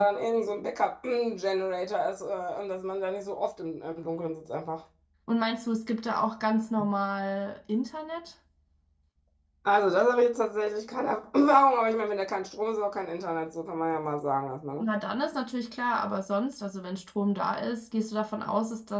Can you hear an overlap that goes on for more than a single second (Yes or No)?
No